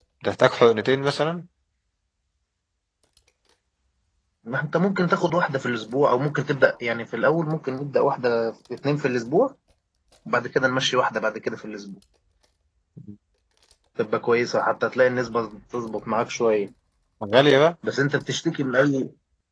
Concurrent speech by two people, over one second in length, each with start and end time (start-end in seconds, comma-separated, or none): none